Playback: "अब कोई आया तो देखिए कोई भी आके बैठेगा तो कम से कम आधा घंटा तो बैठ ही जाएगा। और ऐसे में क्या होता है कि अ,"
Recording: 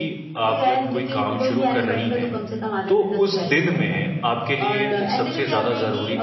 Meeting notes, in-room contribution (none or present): present